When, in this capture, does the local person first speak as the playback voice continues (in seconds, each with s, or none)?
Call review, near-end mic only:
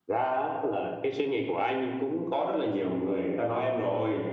none